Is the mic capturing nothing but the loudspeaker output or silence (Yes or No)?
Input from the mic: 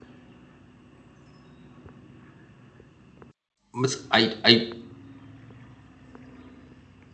No